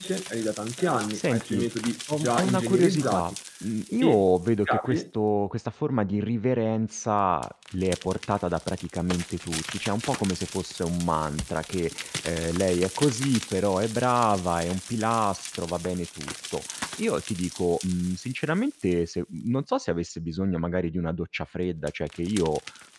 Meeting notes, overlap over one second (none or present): present